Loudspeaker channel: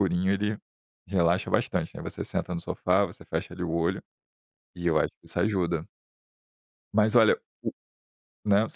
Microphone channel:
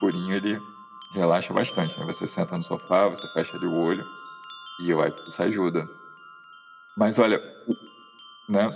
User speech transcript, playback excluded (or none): none